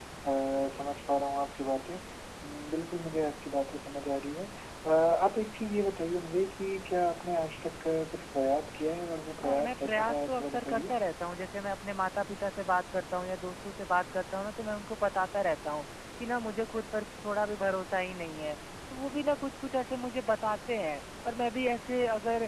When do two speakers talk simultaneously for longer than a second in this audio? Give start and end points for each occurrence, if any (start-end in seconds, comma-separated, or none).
9.4-10.9